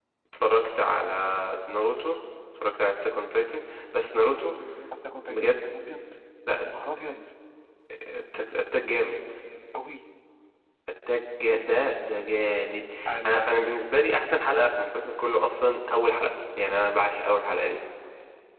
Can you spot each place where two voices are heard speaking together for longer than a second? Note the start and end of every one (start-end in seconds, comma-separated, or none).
none